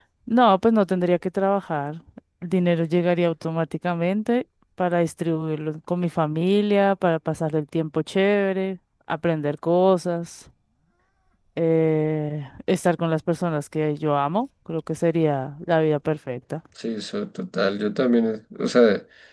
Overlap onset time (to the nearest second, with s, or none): none